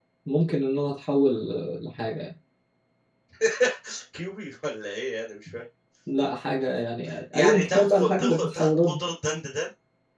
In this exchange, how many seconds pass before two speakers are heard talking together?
7 s

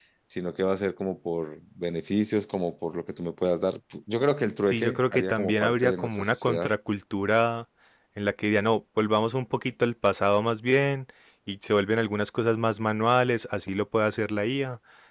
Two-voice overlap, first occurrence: 5 s

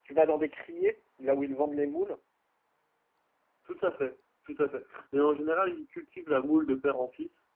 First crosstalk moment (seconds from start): none

